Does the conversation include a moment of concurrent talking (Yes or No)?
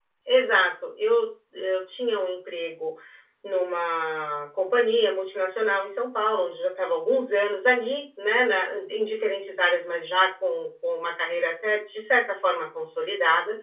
No